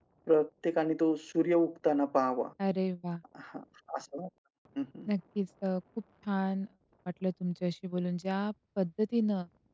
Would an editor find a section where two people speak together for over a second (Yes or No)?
No